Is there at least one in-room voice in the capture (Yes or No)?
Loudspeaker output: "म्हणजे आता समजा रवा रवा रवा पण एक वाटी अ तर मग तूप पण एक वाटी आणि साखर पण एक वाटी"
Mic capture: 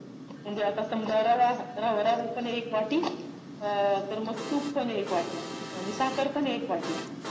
No